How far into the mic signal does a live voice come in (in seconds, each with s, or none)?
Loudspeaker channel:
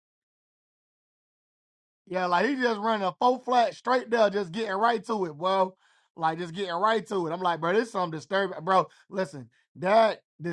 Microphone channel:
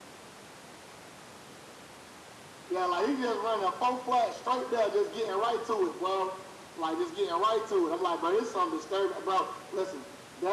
none